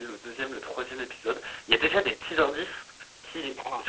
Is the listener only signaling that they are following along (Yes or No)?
Yes